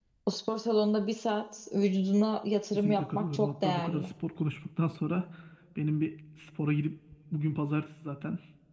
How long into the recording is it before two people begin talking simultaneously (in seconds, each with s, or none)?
2.7 s